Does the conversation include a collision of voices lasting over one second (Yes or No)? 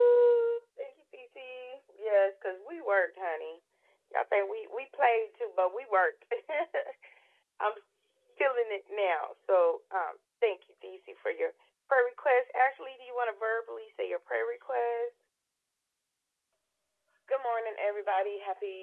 No